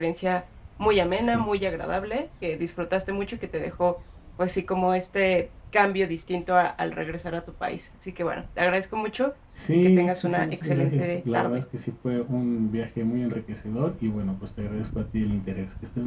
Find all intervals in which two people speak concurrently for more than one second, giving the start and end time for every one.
9.7-11.6

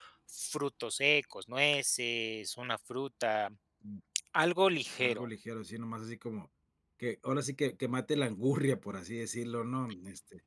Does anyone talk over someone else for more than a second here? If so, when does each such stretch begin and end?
none

